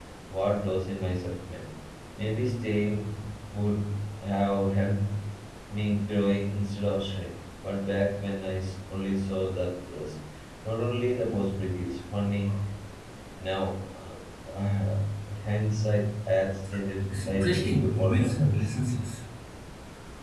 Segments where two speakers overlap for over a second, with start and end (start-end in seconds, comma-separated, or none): 17.1-18.6